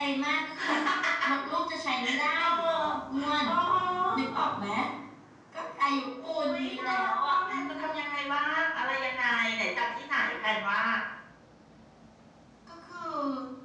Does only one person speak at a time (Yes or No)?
No